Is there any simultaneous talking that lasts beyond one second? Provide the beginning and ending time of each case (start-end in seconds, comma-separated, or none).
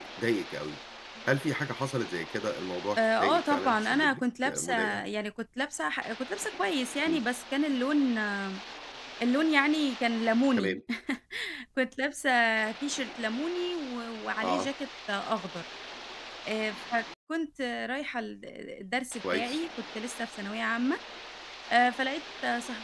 3.0-5.0